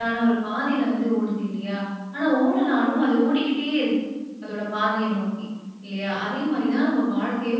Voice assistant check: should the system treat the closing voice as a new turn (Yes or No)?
No